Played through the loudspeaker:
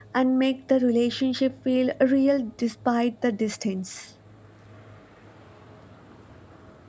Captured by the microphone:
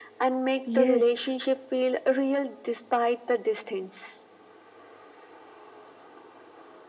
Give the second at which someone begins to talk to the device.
1 s

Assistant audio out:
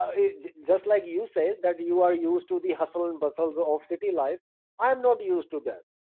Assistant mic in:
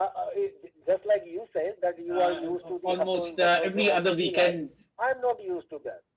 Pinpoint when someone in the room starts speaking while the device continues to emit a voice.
2 s

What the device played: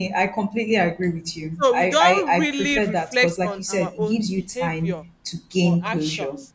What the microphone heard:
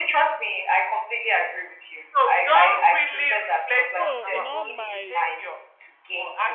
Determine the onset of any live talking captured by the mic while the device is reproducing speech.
4 s

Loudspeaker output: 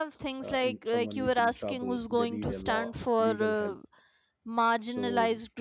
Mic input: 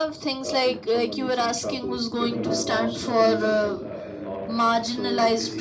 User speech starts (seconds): 2 s

